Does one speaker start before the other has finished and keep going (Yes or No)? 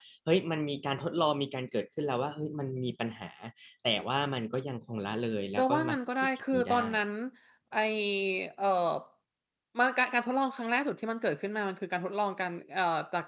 Yes